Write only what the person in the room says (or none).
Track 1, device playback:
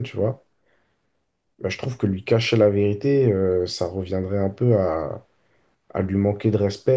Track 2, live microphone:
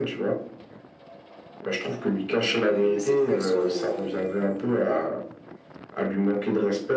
euh, cette personne, euh,